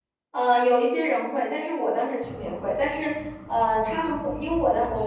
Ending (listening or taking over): listening